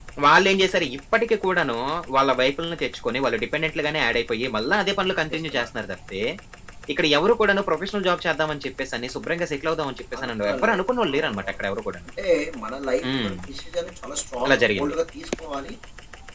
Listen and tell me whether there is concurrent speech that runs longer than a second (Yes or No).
Yes